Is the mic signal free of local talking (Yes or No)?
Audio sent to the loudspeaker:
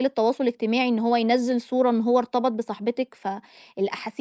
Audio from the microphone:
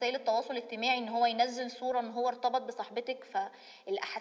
Yes